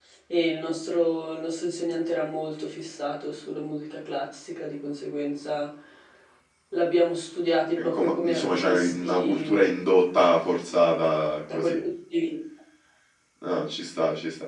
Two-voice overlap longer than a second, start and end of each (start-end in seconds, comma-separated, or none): 7.8-9.7